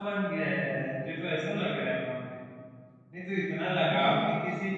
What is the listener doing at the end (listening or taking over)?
listening